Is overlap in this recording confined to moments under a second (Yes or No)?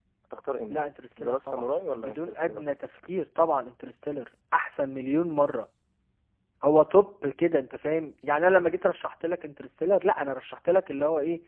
No